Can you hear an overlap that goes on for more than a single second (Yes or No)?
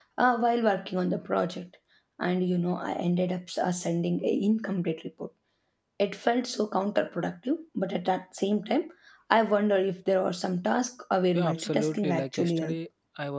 Yes